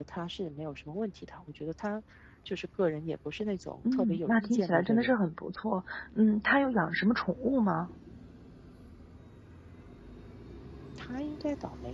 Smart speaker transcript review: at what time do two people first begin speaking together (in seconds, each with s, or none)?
3.8 s